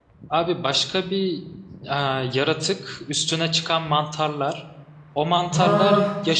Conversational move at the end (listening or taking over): listening